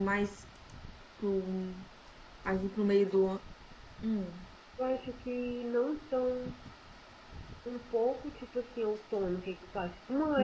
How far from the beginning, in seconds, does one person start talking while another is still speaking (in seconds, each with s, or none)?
none